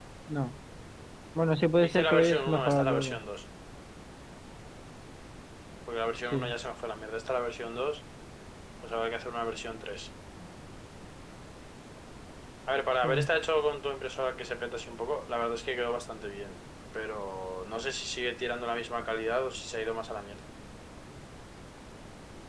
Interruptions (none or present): present